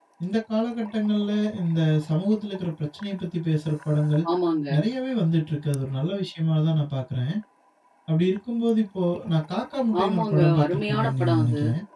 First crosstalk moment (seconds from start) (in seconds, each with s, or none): 9.9 s